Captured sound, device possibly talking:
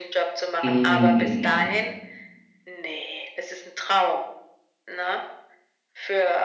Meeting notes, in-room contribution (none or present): present